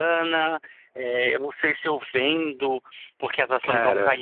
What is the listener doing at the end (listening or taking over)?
listening